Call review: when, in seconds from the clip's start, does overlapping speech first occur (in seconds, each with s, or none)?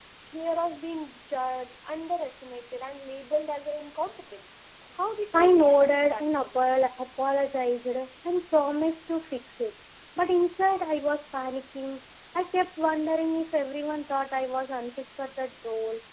5.3 s